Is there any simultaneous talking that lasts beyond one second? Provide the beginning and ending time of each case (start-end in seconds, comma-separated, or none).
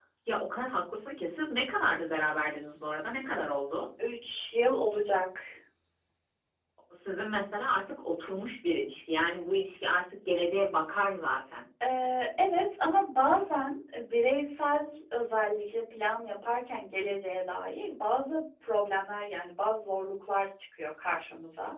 none